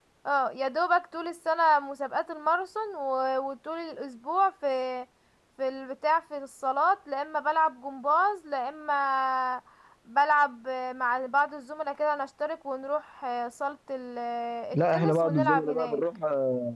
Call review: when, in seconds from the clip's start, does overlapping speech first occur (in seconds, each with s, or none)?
14.7 s